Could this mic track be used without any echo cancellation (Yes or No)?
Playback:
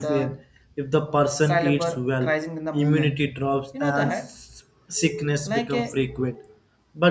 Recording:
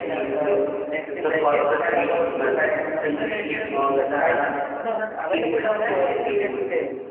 No